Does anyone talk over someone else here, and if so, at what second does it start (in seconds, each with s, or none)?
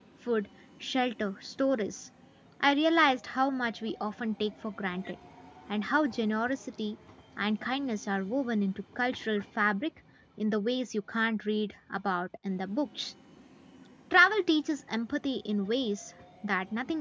none